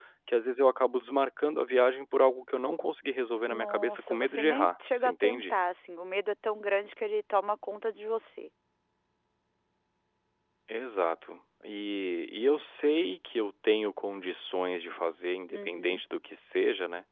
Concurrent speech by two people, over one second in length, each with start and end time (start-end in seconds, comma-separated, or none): 3.5-5.5